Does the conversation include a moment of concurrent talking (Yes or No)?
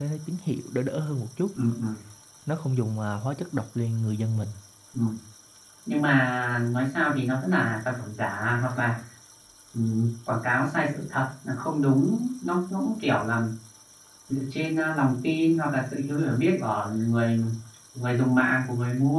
No